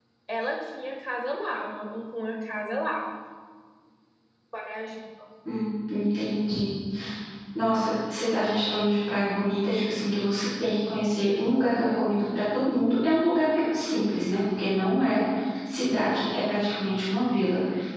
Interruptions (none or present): none